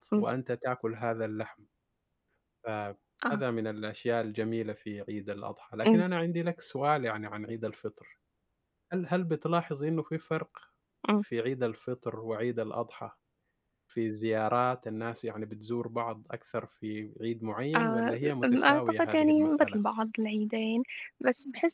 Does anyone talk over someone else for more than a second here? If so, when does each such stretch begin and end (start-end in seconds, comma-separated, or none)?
17.8-19.8